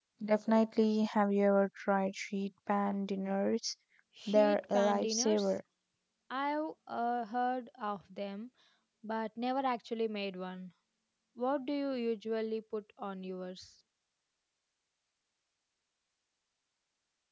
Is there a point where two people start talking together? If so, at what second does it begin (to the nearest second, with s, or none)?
4 s